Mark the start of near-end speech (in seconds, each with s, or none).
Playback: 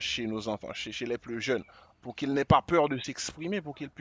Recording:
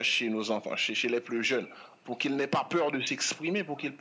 none